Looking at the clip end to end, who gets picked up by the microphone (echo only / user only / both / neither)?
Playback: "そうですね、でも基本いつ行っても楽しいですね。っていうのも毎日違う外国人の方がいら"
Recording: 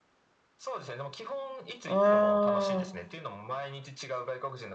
both